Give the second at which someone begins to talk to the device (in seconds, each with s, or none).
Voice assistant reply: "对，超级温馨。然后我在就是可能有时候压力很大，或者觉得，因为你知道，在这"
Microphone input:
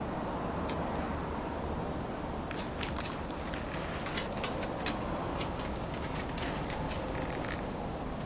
none